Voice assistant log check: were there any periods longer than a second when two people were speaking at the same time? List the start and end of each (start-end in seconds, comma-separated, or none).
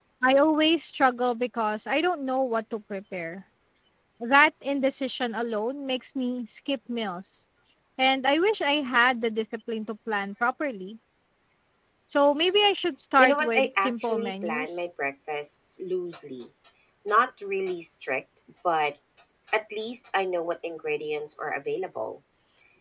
13.2-14.7